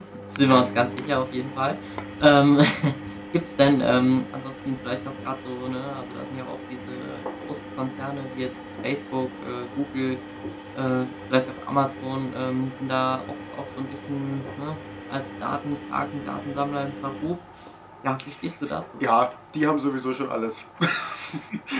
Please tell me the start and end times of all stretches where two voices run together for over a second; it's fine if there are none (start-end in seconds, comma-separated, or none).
none